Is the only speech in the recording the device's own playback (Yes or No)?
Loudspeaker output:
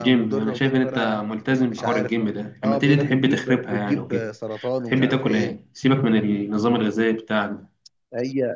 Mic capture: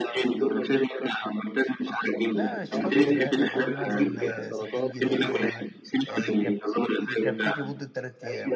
No